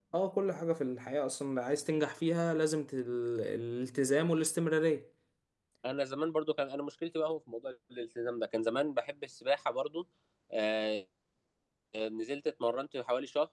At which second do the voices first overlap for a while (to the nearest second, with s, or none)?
none